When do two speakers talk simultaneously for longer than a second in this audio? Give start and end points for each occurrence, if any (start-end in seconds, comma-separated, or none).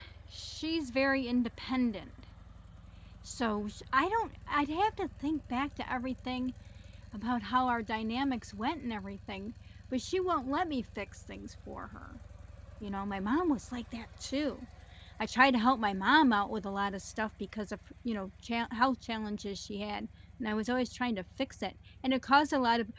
none